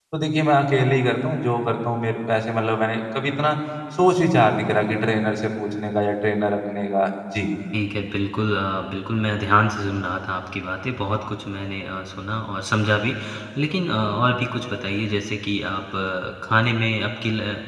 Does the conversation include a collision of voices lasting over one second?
No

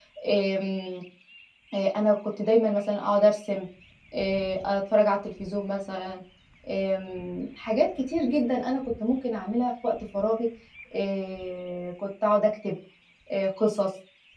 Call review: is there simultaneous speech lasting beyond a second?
No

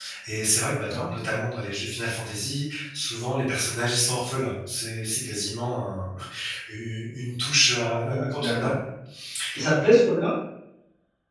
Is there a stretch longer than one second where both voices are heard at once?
No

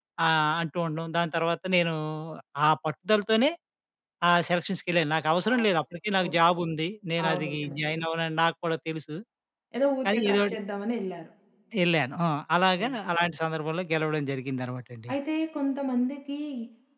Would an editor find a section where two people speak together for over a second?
No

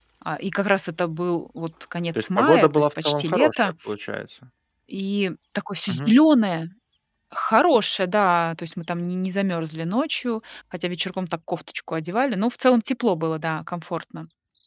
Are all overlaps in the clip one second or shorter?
No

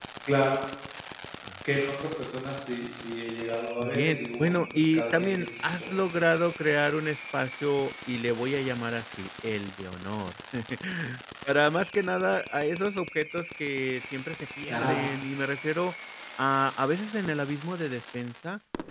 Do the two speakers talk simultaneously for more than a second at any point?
Yes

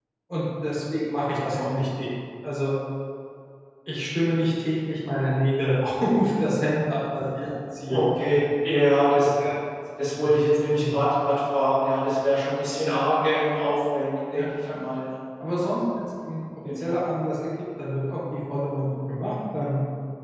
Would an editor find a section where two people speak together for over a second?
No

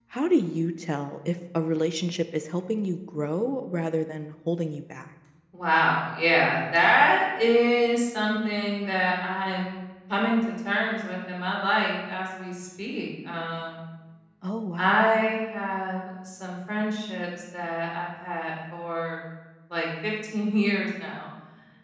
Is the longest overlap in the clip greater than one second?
No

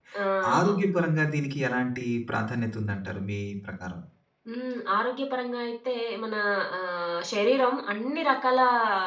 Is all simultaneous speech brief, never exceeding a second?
Yes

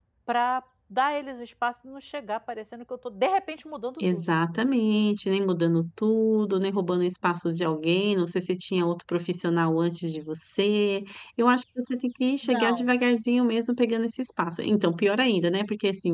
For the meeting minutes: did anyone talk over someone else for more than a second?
No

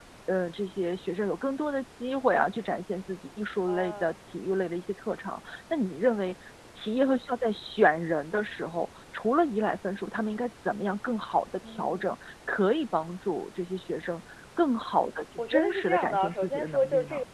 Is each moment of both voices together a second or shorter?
No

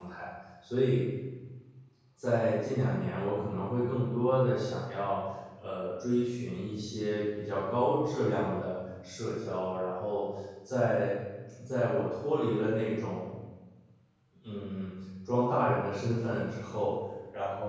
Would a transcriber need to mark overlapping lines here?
No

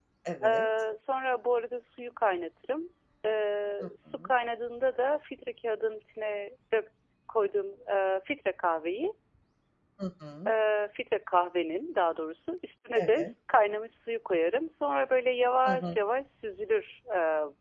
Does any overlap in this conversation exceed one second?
No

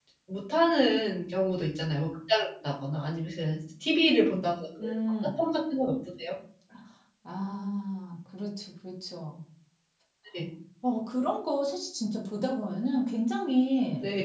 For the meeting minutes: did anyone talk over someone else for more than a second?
No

